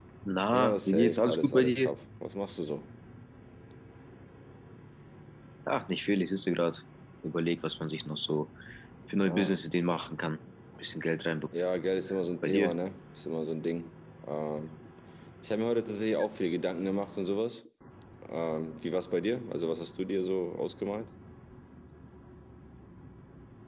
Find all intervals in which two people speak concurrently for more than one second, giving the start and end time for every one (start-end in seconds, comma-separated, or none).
0.5-1.9